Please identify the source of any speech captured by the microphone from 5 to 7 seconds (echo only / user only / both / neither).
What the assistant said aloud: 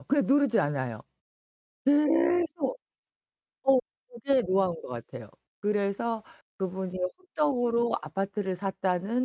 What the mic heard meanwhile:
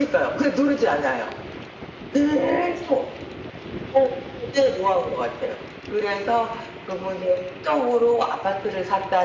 echo only